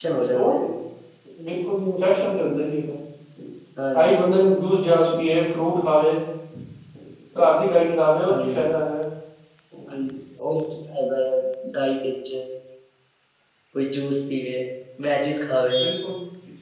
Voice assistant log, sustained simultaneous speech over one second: none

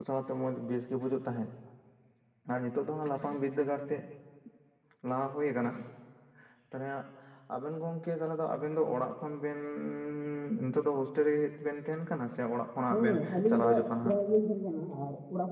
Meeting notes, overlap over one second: present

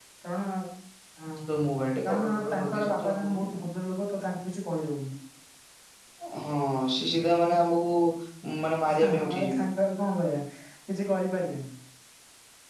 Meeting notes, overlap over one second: present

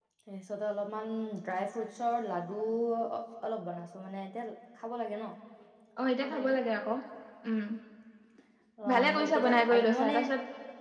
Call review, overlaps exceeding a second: present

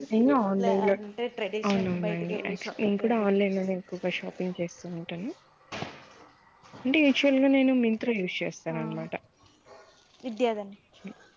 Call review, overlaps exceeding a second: present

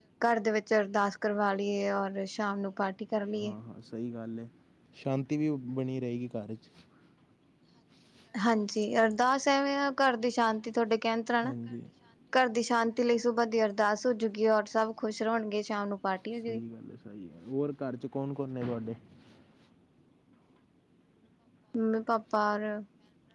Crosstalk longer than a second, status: none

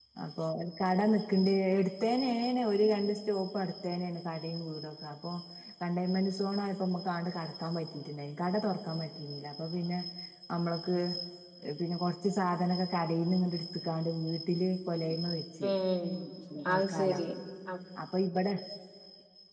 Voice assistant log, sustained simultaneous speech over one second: none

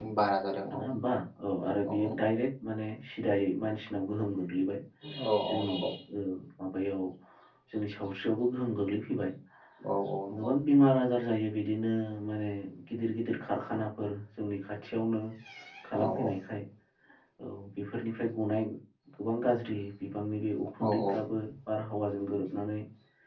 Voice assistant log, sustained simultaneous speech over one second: none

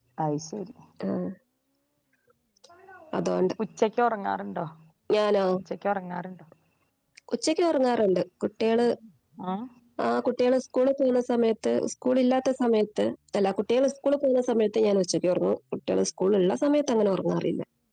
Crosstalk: none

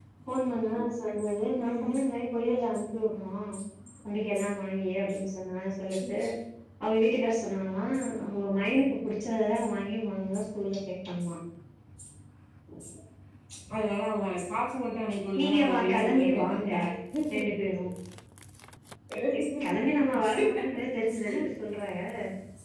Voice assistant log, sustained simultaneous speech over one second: present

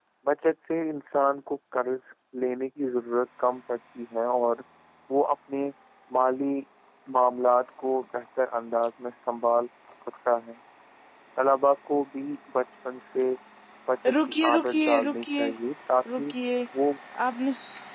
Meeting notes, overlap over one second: present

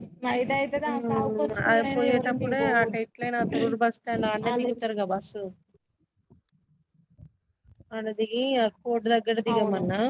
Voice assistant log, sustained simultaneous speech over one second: present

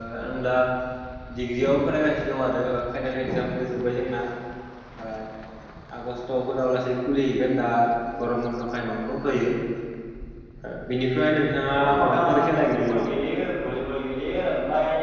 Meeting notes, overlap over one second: present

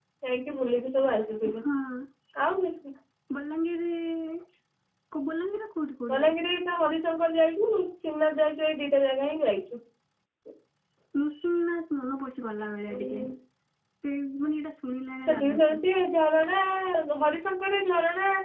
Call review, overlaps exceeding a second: none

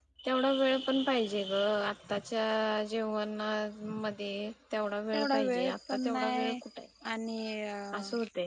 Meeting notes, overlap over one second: present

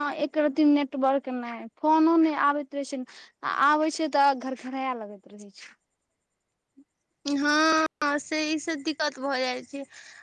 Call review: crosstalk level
none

